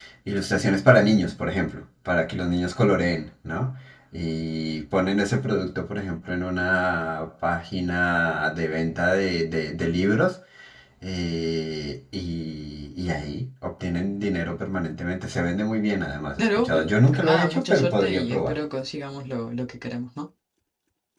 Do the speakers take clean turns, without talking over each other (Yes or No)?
No